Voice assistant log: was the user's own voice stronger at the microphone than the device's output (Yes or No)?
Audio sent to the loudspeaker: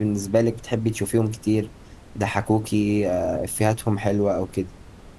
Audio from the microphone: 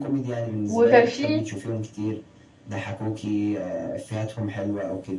Yes